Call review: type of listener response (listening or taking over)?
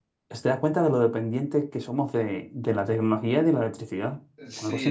taking over